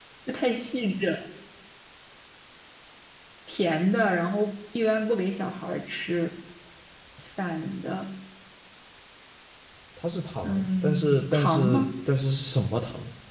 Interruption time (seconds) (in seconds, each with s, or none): 10.4 s